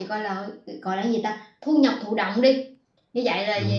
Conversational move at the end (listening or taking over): listening